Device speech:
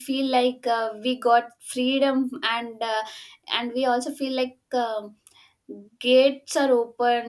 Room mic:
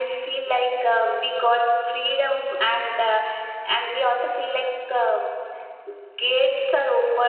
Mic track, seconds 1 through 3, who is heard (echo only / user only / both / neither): echo only